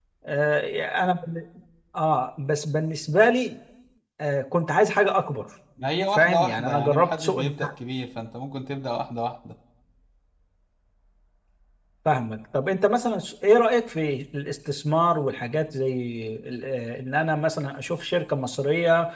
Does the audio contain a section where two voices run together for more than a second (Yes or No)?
Yes